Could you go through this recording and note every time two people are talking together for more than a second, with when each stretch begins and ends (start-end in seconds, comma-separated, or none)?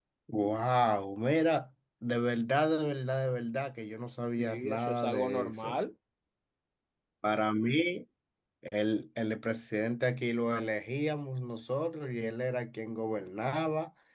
4.4-5.8